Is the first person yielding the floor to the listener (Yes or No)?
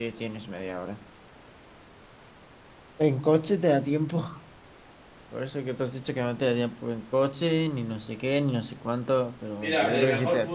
Yes